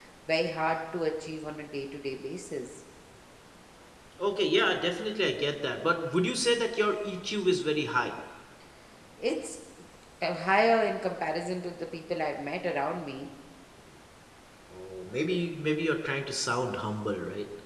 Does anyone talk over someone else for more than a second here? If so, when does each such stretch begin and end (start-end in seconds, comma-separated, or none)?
none